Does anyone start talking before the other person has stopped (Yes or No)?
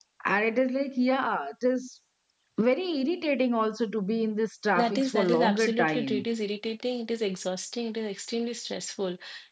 Yes